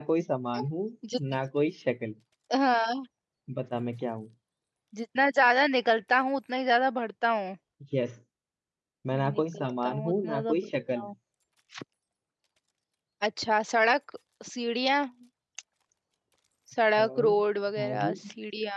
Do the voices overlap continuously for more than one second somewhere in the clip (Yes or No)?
Yes